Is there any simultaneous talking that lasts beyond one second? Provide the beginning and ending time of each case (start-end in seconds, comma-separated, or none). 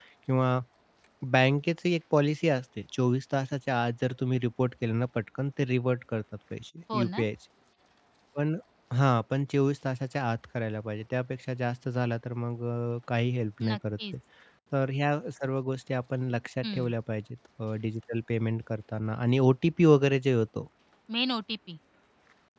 none